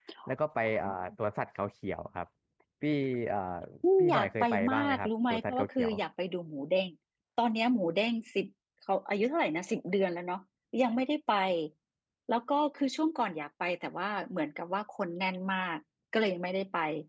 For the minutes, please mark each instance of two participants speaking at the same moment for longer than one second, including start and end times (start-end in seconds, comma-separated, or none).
4.0-5.9